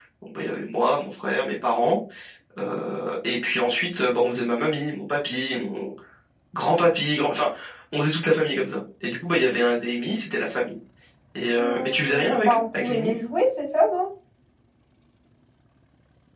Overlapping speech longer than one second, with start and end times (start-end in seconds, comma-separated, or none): 11.6-13.1